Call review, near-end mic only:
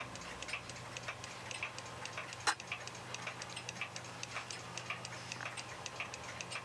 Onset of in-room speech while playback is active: none

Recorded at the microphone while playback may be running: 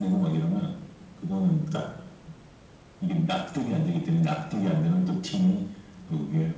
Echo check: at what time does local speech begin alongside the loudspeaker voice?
none

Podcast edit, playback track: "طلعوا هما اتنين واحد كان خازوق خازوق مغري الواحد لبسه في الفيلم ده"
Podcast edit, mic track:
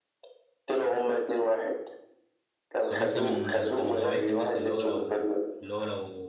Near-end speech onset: 2.9 s

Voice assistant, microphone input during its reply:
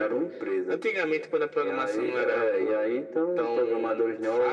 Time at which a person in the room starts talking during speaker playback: none

